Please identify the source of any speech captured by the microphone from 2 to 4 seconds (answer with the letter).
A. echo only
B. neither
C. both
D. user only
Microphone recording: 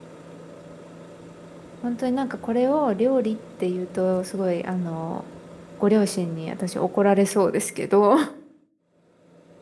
D